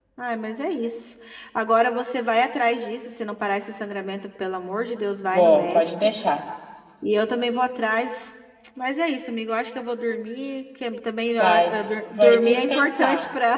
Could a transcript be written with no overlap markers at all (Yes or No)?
No